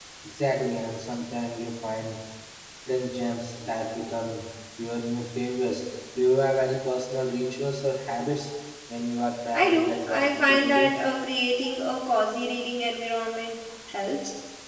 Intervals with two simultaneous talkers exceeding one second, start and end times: 9.5-10.9

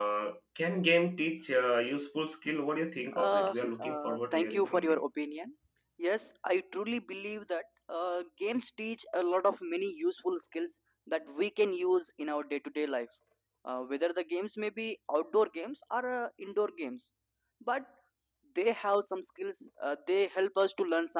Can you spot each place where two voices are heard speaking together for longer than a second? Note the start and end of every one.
3.2-5.0

